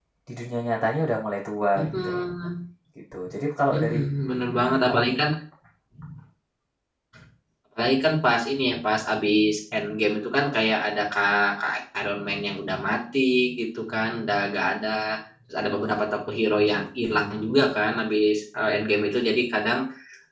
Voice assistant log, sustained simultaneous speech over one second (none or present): none